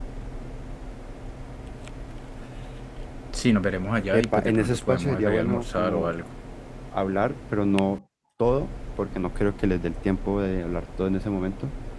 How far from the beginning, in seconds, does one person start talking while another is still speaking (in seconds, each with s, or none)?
4.1 s